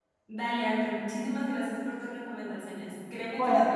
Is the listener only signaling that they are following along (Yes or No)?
Yes